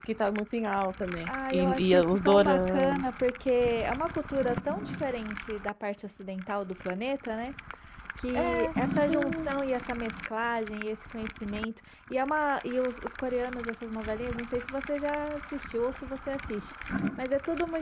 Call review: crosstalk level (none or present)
present